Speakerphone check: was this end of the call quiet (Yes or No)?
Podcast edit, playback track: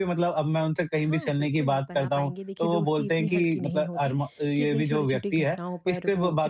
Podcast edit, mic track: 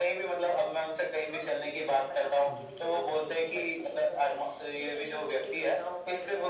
No